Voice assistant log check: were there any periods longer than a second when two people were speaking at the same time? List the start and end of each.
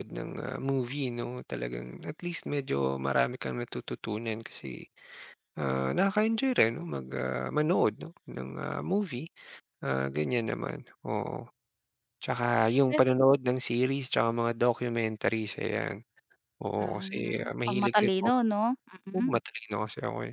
16.8-18.3

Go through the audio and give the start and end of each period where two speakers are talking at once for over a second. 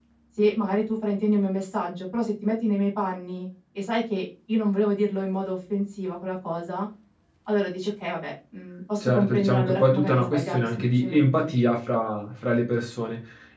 9.0-11.5

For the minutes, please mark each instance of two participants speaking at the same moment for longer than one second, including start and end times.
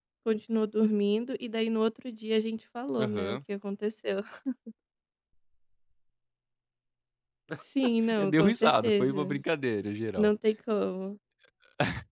8.1-9.4

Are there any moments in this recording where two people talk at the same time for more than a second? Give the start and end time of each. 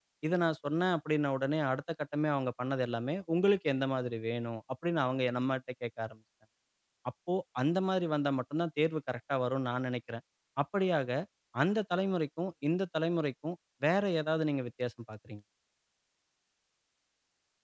none

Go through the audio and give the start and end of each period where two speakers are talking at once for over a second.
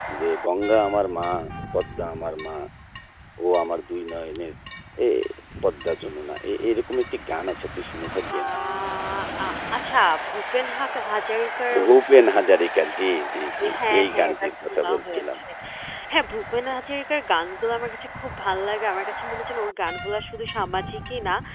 13.6-15.4

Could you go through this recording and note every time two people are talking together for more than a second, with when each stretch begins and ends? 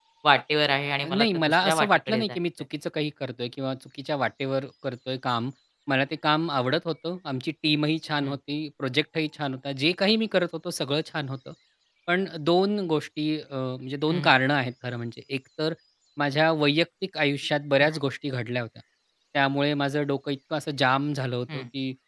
1.1-2.4

